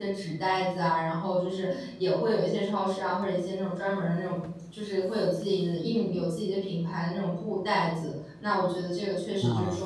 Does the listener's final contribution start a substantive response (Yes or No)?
No